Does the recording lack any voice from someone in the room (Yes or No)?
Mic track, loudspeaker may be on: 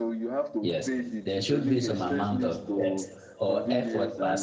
No